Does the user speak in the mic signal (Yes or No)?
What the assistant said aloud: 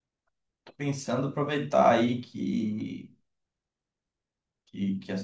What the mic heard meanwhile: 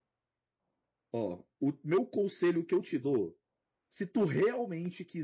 Yes